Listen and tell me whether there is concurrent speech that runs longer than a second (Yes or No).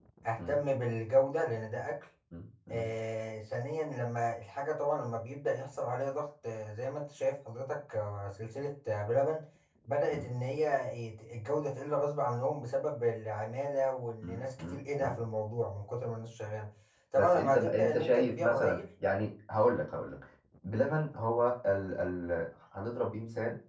Yes